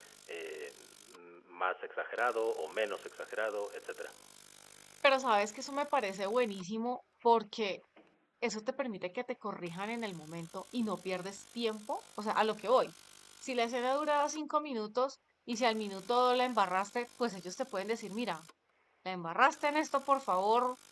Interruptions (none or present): none